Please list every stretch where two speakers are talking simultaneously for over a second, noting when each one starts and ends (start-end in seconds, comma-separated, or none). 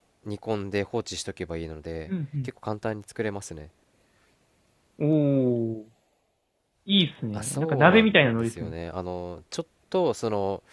7.3-8.7